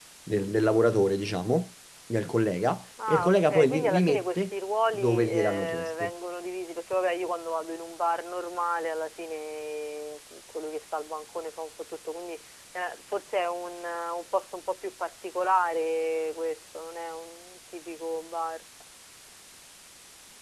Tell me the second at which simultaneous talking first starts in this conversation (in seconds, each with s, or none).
3.0 s